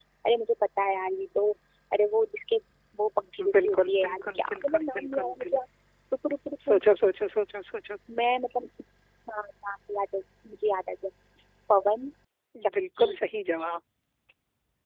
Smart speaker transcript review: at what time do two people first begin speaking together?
3.5 s

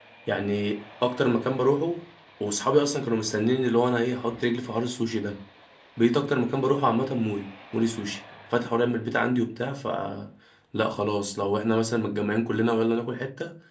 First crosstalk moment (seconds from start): none

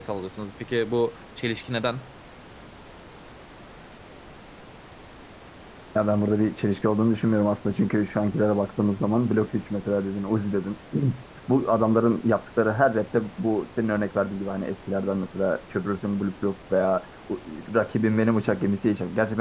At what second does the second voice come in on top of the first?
none

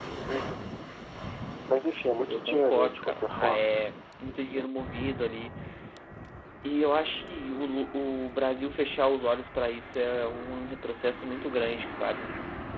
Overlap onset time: 2.3 s

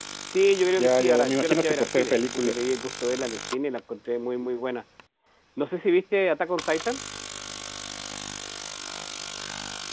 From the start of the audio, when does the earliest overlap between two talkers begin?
0.8 s

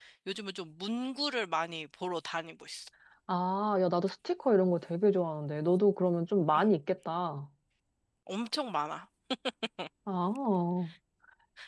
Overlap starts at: none

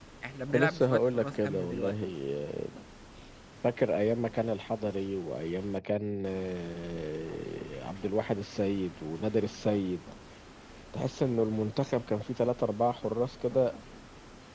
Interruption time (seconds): 0.5 s

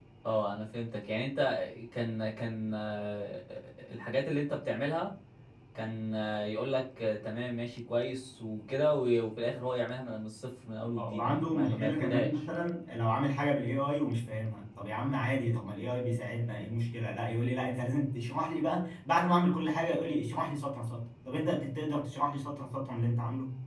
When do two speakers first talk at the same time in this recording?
11.0 s

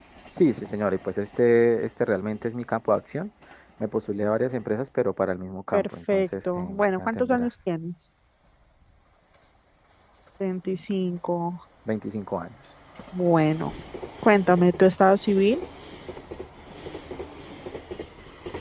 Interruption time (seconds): 5.7 s

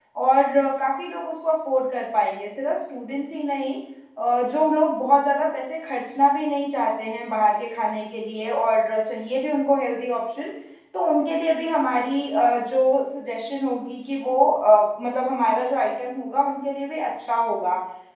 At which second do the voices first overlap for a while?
none

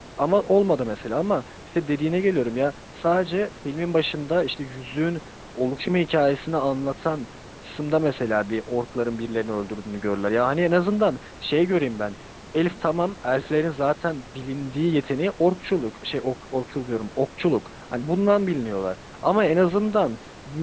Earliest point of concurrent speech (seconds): none

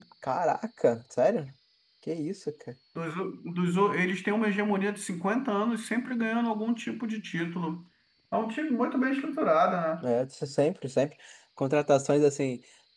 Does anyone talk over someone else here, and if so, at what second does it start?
none

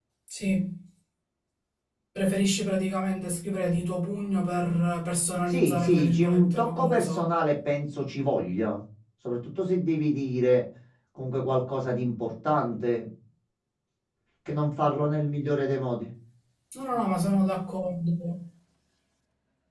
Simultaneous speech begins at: 5.5 s

